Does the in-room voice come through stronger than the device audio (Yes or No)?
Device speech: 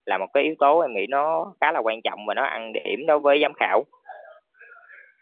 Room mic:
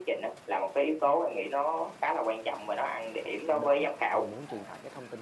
No